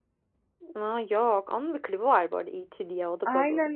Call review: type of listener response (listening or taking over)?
taking over